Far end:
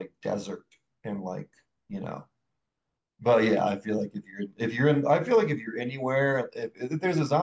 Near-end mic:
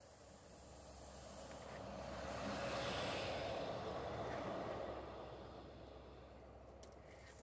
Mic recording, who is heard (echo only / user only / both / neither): neither